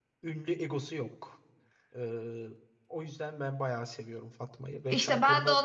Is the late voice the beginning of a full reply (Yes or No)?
Yes